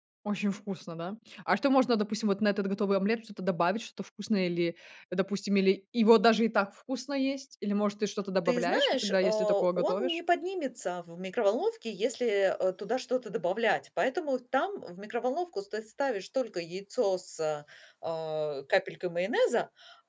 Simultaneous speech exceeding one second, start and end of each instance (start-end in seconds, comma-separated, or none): 8.4-10.2